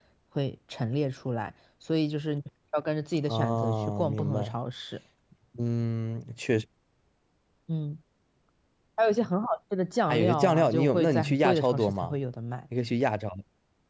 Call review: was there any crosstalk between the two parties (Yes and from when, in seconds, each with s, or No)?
Yes, from 3.3 s